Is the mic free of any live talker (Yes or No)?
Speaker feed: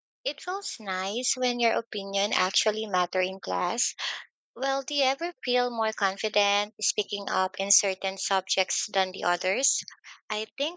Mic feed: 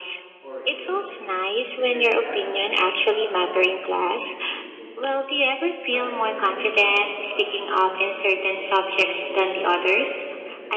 No